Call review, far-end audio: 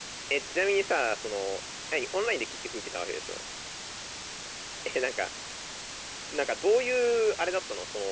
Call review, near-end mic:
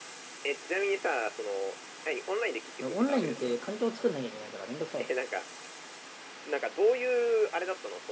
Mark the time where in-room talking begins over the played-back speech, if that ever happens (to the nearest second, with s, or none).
3 s